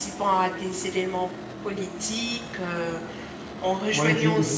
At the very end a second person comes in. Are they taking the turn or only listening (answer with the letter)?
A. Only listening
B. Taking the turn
B